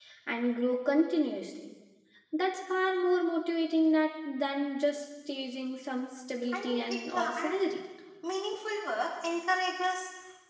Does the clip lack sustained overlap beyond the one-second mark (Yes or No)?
No